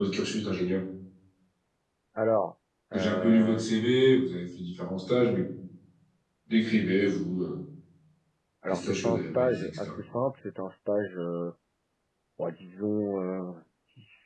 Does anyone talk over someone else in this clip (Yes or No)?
Yes